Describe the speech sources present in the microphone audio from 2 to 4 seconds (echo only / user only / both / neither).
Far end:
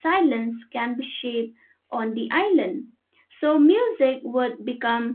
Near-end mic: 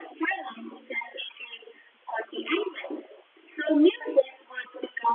echo only